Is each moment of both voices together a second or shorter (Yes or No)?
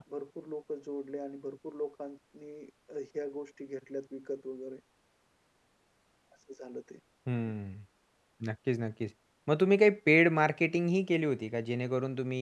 Yes